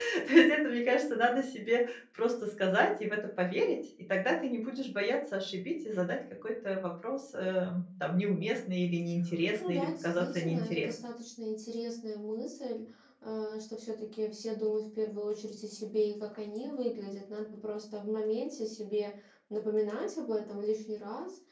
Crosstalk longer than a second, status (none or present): present